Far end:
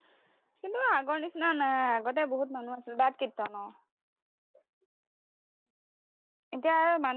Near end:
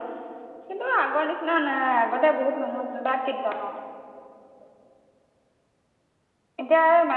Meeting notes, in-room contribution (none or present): none